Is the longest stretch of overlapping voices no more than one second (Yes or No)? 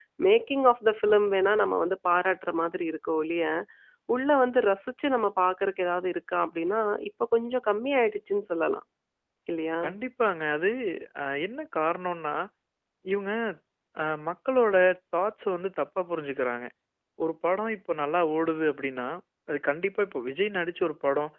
Yes